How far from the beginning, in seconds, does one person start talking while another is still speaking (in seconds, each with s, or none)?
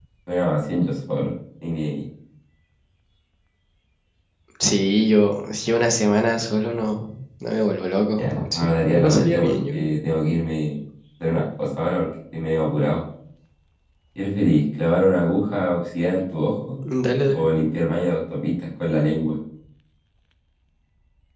8.2 s